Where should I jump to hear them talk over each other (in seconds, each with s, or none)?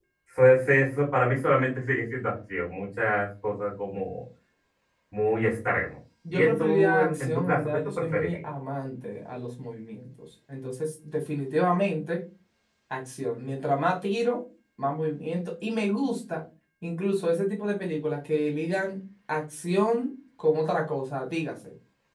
6.2 s